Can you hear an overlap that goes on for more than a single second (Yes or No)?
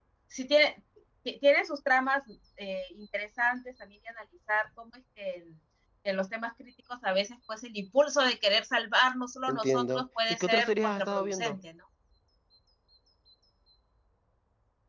Yes